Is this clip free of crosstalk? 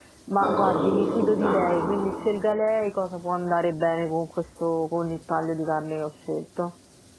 No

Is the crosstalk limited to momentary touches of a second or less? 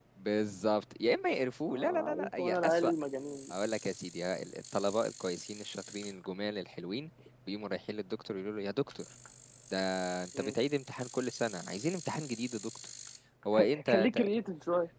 No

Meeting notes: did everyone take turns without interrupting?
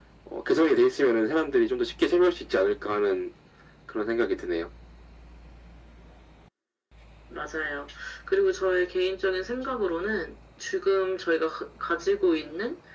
Yes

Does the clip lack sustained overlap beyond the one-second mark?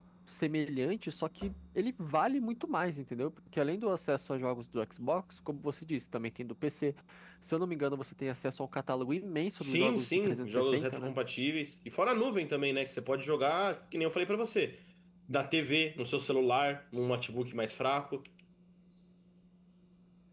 No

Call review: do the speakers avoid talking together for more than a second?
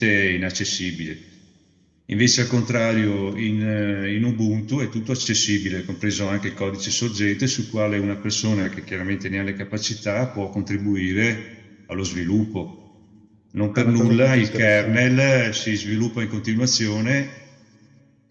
No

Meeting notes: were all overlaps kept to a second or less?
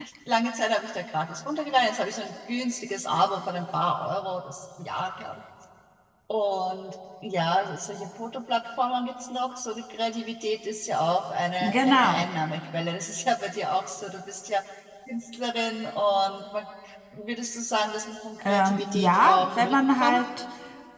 No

